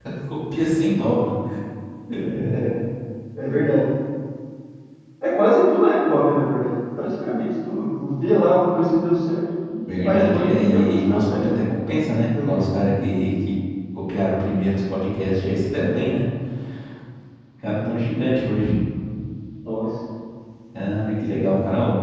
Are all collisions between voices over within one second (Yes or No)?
No